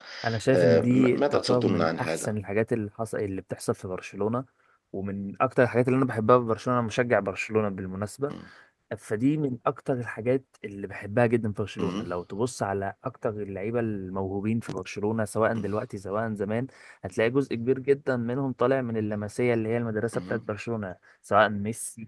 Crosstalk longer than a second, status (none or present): present